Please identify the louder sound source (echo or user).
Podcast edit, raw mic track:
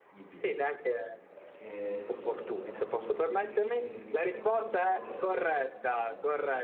echo